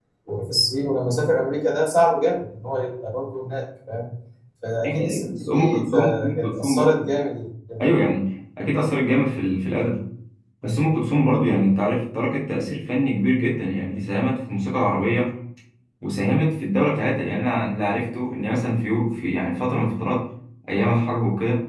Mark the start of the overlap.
5 s

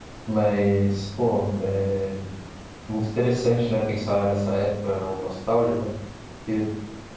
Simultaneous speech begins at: none

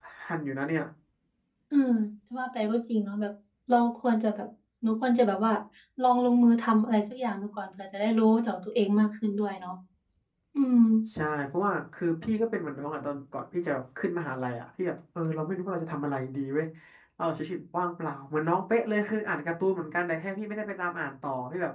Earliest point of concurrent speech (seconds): none

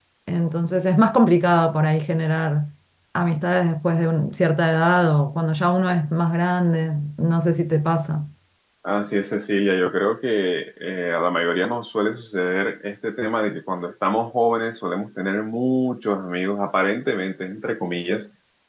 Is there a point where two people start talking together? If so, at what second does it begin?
none

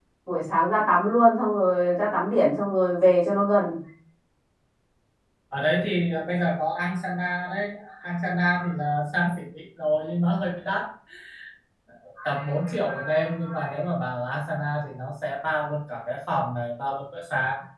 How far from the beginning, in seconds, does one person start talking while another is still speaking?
none

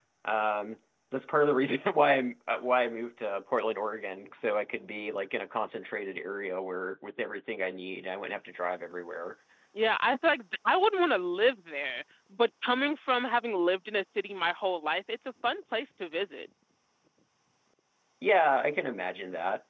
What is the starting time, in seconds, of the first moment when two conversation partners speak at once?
none

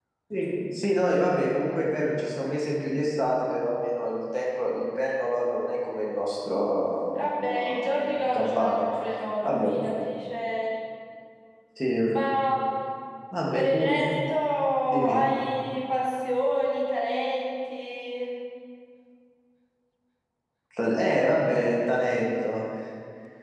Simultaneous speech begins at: 7 s

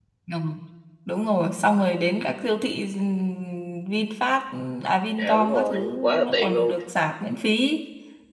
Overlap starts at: 5 s

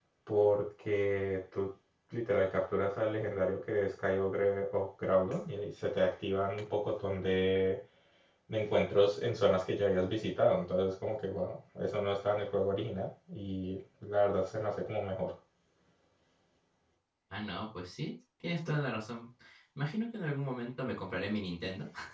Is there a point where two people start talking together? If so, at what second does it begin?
none

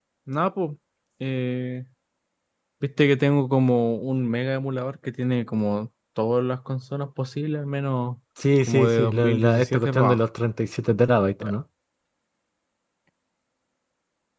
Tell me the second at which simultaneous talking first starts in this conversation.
9 s

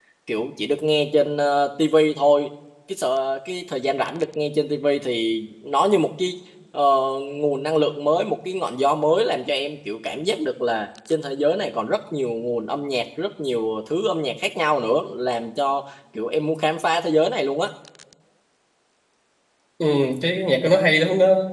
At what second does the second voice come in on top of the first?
none

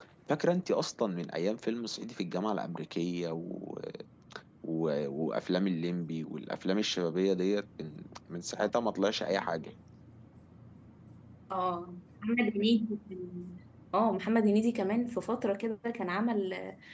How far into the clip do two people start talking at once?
none

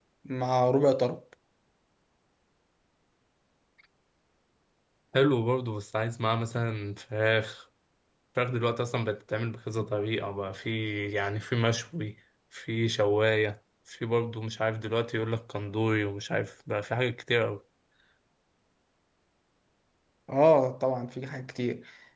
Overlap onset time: none

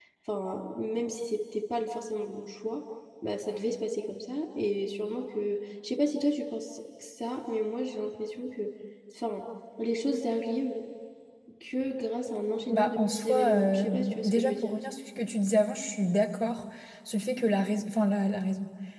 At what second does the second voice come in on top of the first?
13 s

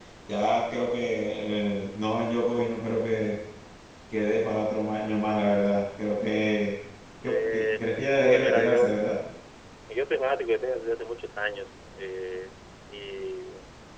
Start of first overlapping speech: 7 s

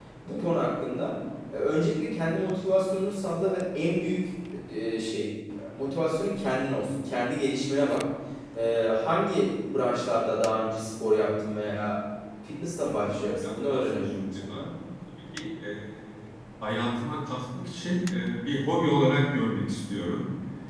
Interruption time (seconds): 13 s

